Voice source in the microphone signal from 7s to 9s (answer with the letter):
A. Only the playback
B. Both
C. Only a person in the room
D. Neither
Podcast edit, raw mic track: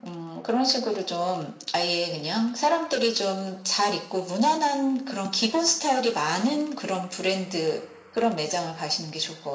A